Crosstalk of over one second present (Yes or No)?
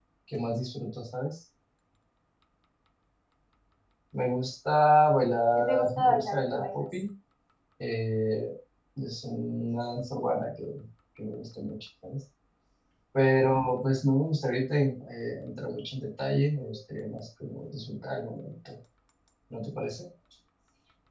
Yes